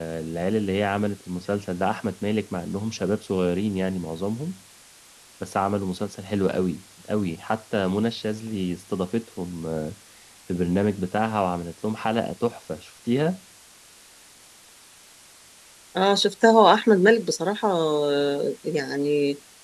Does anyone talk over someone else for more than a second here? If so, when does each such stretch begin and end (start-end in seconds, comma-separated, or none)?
none